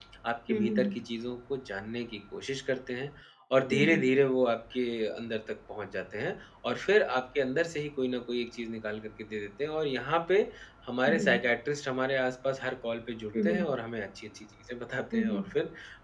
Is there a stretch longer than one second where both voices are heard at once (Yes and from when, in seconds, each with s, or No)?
No